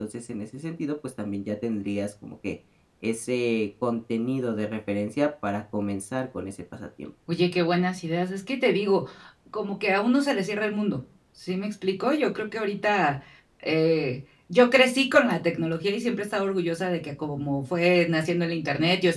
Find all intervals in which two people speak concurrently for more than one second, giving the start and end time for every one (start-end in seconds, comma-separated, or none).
none